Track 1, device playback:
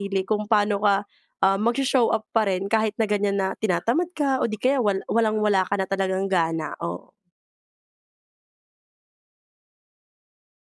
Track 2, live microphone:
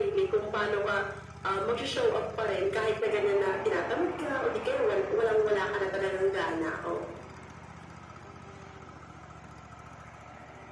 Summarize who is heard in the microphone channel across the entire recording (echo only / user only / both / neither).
echo only